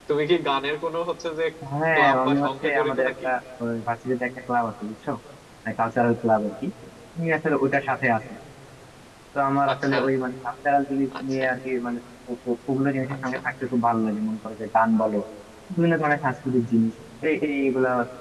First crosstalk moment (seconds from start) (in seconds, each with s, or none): 1.9 s